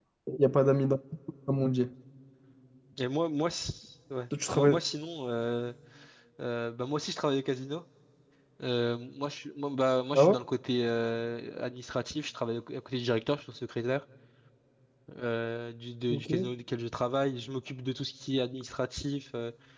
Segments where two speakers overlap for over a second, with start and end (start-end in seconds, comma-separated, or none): none